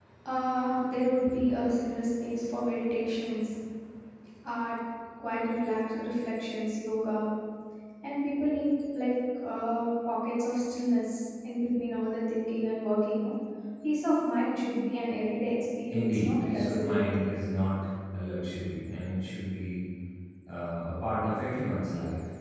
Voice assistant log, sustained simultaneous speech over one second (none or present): present